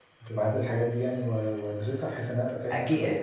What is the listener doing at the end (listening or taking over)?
taking over